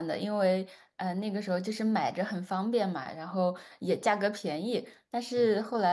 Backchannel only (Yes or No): Yes